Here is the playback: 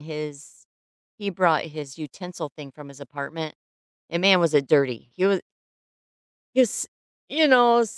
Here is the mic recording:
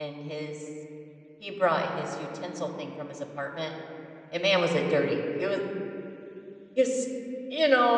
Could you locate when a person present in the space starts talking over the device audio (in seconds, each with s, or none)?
none